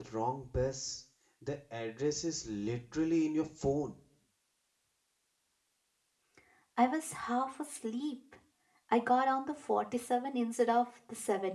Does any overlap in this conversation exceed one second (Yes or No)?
No